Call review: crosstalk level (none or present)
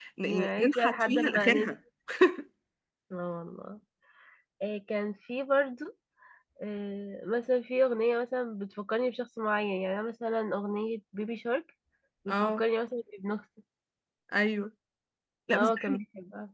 present